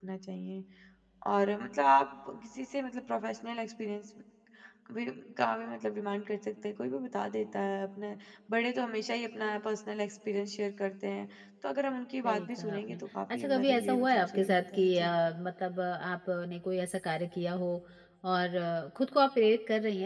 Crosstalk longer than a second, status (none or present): present